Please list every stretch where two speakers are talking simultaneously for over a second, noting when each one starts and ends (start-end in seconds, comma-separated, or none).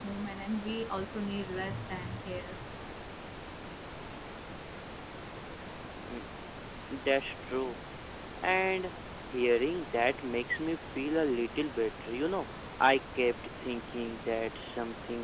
none